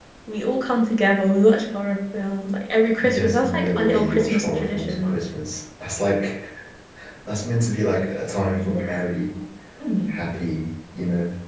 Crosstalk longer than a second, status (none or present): present